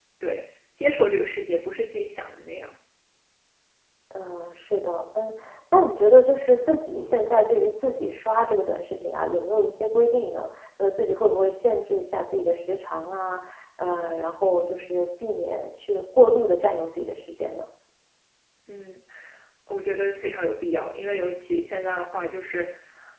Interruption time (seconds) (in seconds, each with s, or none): none